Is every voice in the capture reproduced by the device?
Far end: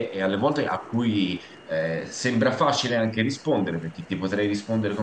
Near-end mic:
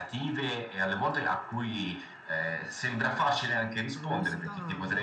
No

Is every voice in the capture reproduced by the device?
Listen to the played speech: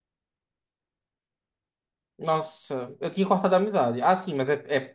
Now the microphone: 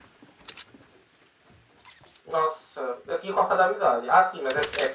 Yes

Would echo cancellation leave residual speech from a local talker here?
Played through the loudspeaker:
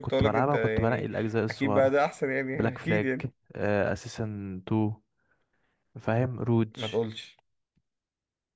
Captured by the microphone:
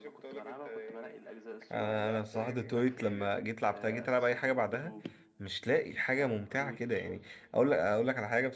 Yes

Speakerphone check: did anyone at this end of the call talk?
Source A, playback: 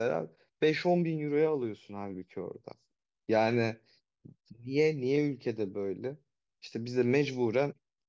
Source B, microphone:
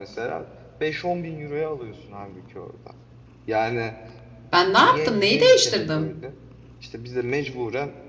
Yes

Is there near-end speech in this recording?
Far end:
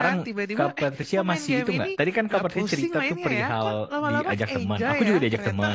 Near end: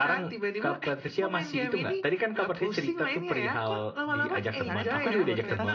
Yes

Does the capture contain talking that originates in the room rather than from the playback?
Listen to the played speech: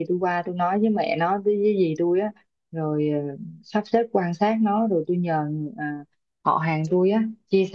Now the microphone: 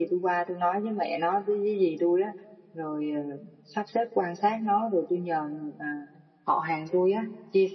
No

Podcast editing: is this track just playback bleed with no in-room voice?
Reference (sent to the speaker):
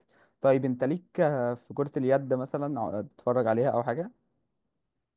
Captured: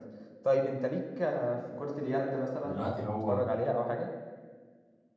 No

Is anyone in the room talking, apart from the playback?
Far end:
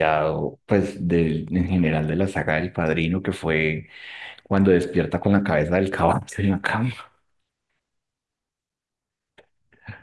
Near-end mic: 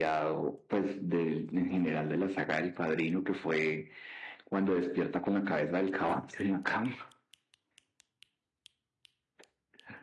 No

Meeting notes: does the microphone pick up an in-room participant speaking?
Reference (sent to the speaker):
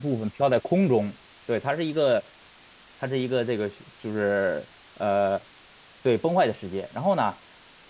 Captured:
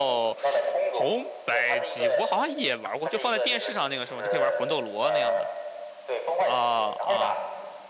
Yes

